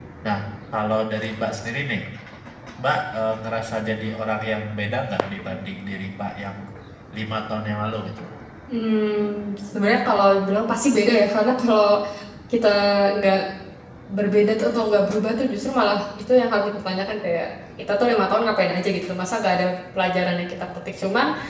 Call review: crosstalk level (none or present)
none